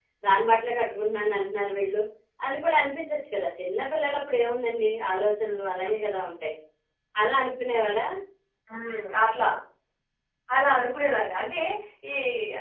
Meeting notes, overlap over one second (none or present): none